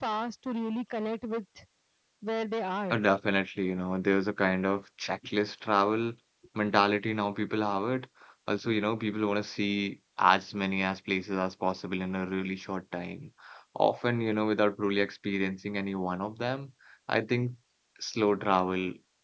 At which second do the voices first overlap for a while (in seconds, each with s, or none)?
none